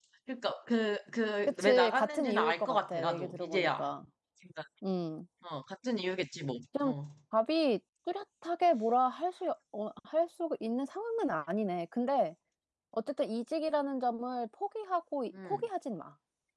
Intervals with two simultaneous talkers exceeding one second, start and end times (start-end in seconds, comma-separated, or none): 1.6-3.9